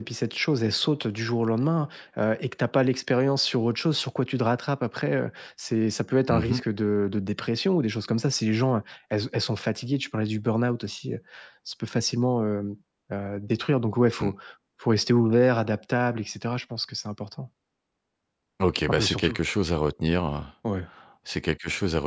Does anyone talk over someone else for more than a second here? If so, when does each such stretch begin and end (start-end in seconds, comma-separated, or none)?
none